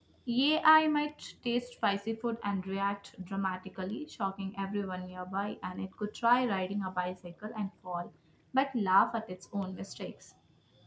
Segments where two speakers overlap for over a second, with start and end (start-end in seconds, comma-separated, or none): none